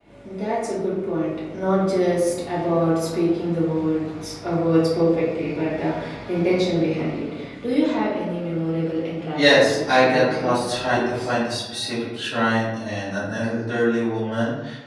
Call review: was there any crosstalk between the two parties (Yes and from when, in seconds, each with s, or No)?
Yes, from 9.3 s